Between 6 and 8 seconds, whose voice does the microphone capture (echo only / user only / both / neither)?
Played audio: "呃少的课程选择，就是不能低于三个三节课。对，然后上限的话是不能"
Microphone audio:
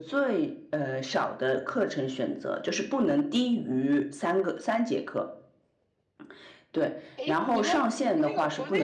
both